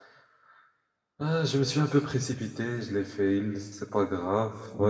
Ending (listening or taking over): listening